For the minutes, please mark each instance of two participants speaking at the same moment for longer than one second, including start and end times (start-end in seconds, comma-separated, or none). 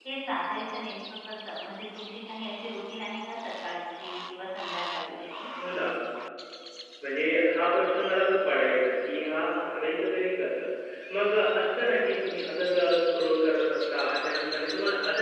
none